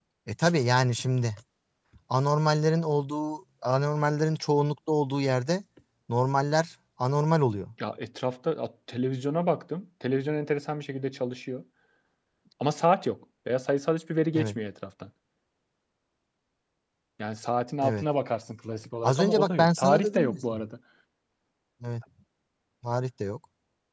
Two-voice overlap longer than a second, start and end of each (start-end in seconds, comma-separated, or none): 19.0-20.4